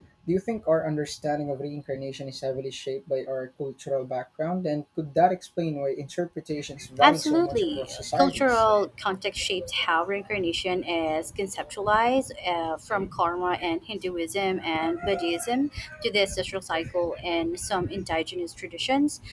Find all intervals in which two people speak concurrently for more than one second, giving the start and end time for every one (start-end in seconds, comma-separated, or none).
7.0-8.6